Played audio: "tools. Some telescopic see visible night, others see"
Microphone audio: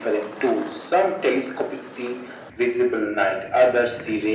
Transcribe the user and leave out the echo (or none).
none